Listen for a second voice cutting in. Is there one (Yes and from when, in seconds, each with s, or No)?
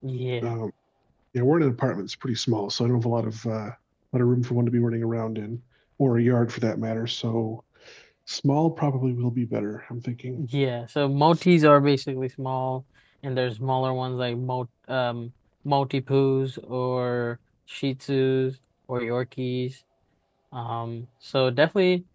No